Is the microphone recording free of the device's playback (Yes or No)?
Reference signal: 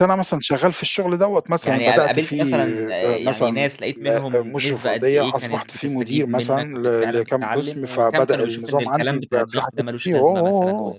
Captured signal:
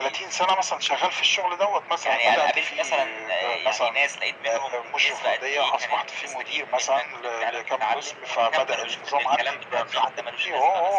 No